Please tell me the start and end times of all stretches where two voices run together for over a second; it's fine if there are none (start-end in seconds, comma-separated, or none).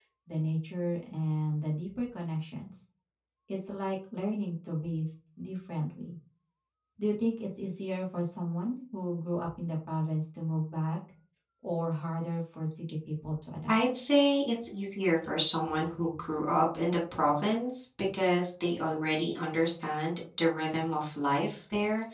none